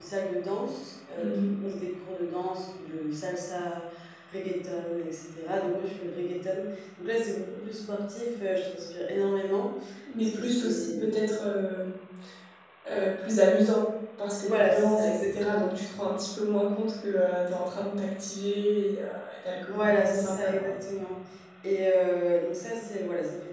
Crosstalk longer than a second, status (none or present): present